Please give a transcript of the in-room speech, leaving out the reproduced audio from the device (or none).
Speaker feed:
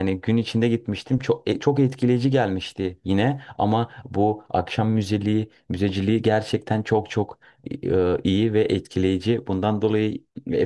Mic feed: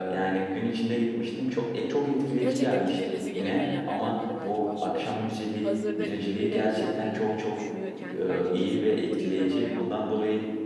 gerçekten gidilmesi gereken yerlerden biri bence başlı başına. Hazırda İzmir'e gelmeyi dü- düşünüyorken bence kesinlikle uğrayayım ben oraya.